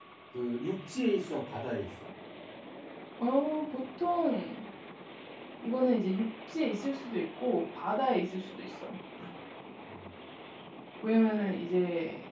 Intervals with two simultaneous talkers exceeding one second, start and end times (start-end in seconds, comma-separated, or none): none